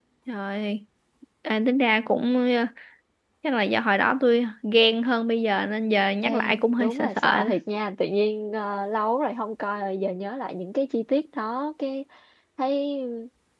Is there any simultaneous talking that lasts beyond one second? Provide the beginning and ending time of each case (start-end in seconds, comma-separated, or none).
6.2-7.5